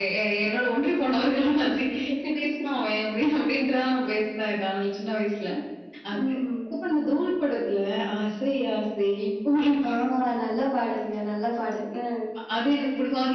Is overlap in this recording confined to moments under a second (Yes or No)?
Yes